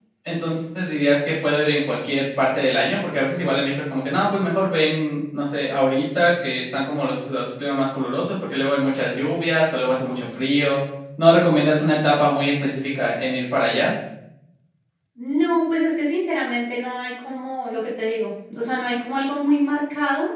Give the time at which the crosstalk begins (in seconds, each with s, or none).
none